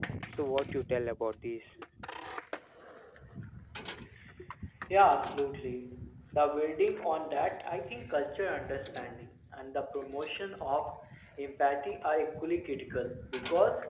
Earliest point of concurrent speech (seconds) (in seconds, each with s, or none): none